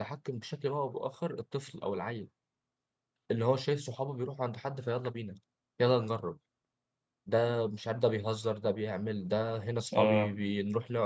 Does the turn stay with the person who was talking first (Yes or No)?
Yes